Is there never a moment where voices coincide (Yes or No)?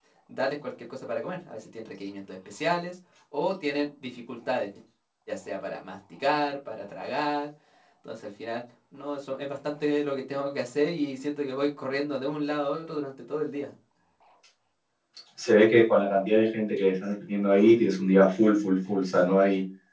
Yes